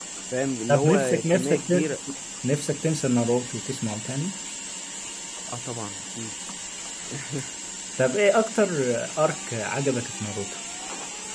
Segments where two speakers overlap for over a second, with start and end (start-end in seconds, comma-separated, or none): 0.7-1.9